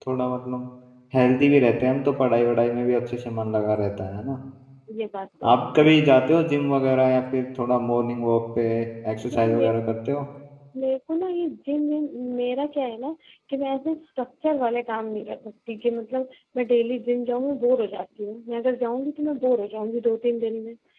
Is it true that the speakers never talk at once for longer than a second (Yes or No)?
Yes